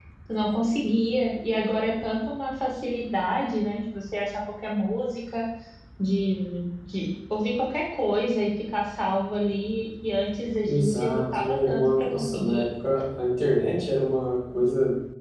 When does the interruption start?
10.7 s

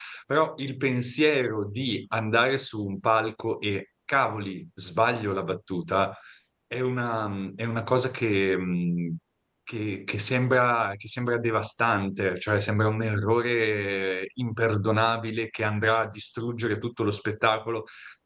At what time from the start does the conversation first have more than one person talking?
none

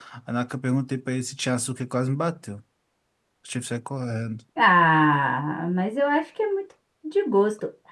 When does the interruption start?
none

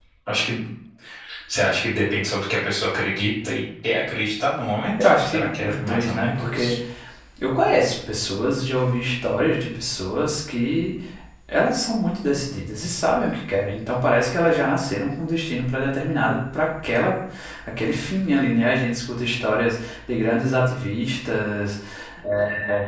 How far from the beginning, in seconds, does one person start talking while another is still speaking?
5.0 s

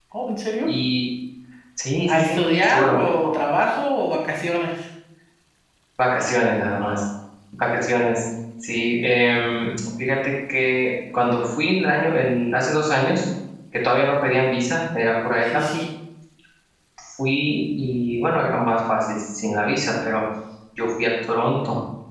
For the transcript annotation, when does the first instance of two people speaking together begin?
2.0 s

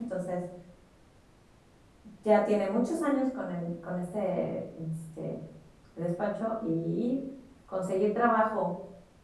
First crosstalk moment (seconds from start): none

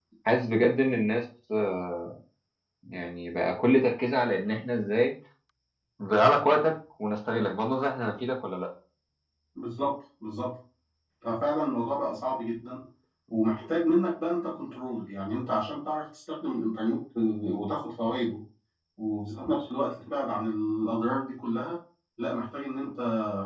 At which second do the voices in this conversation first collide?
none

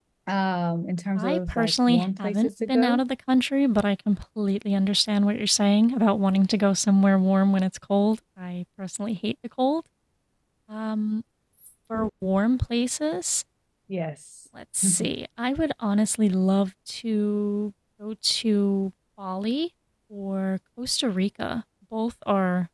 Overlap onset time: 1.2 s

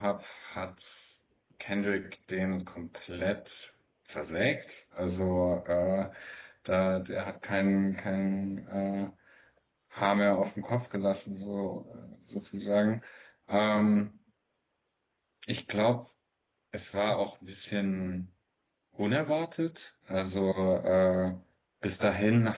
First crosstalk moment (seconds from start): none

